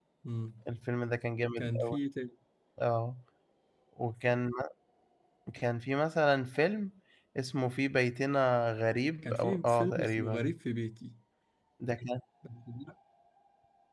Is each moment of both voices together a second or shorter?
No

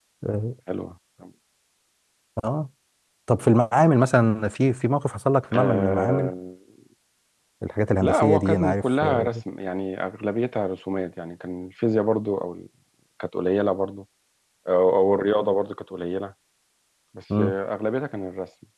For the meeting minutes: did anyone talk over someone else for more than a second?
Yes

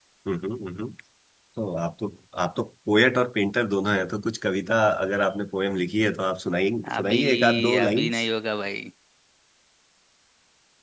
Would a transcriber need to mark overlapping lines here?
Yes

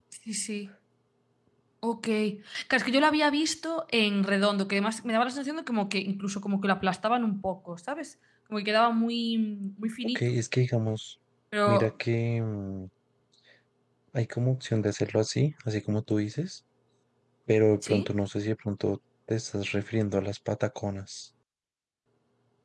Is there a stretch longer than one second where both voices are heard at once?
No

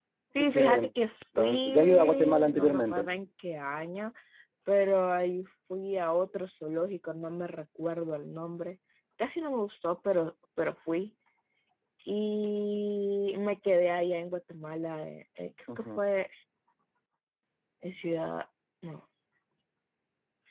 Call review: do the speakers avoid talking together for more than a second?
No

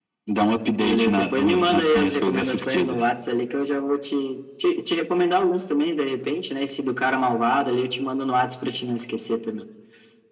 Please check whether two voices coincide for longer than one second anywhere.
Yes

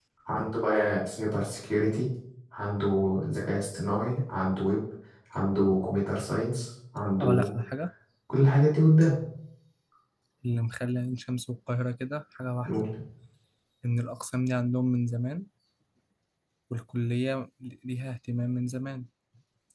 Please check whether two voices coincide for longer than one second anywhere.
No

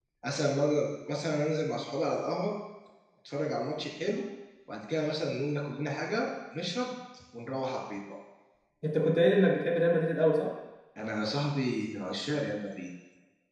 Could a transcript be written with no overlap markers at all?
Yes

